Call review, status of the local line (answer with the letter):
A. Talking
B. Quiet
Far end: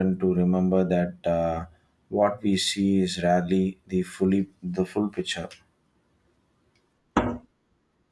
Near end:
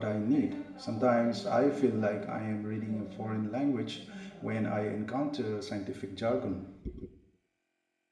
A